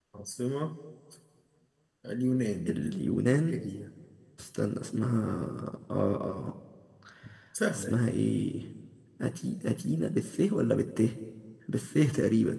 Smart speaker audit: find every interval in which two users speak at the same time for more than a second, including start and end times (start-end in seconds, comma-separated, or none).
none